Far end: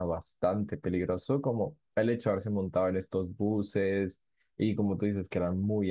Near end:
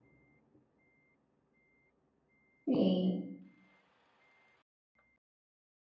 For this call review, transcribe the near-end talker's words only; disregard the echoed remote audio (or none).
Sí.